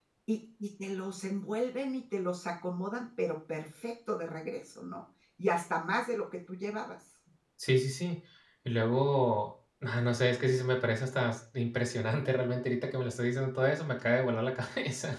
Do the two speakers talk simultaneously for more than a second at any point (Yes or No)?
No